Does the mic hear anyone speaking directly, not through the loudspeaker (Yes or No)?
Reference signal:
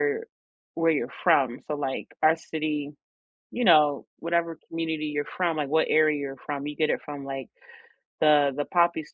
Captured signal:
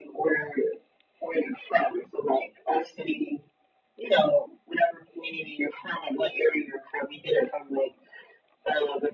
No